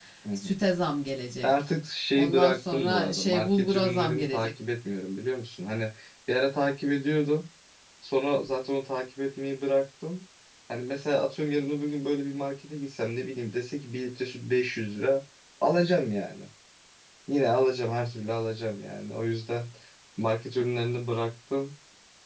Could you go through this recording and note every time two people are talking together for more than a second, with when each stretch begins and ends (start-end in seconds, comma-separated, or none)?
2.1-4.5